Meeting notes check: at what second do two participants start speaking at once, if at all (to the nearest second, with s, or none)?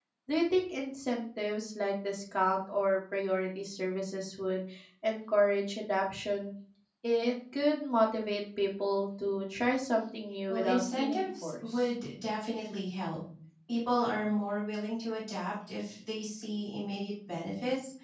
10 s